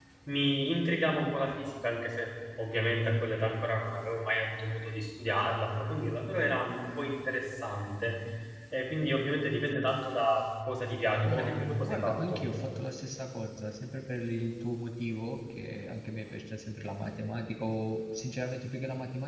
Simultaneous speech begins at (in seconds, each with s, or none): 11.2 s